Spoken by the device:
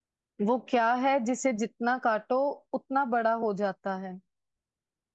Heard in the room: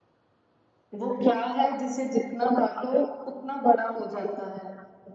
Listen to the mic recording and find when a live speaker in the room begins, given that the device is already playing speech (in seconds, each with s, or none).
none